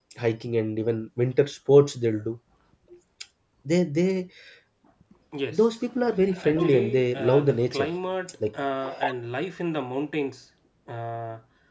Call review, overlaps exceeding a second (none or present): present